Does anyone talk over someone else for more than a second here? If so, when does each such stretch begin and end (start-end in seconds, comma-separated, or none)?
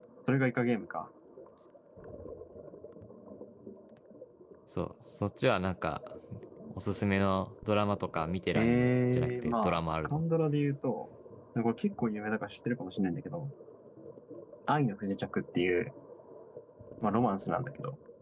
8.5-10.2